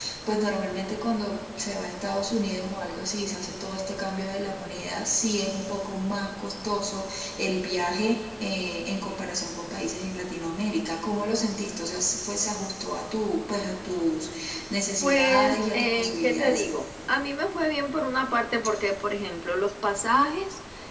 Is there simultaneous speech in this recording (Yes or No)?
Yes